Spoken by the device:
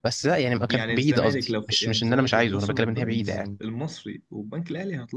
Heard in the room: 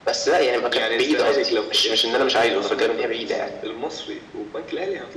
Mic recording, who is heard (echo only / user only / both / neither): echo only